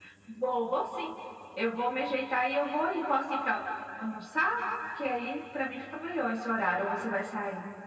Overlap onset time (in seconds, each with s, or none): none